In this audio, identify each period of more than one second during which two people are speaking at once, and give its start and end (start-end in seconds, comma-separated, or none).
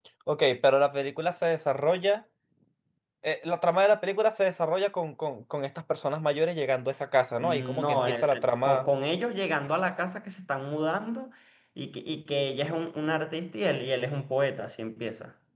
7.4-8.9